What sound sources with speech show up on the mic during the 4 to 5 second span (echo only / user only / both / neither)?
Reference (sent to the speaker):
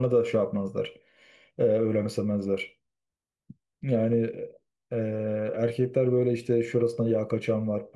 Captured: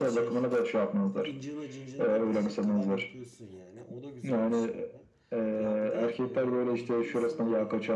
both